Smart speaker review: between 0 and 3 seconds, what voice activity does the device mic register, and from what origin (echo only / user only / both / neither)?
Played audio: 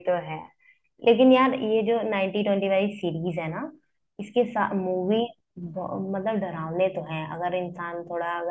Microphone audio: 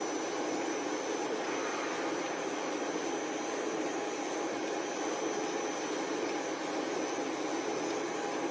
neither